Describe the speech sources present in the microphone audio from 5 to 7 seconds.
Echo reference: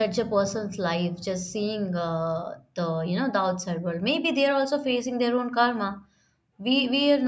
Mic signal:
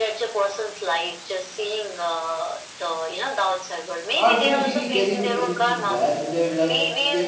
both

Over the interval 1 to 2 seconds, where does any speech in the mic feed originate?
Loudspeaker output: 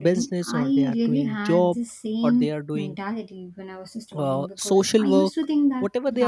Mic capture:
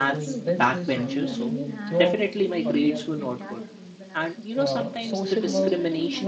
both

